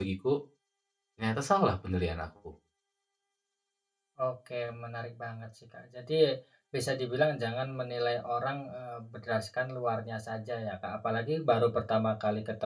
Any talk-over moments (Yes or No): No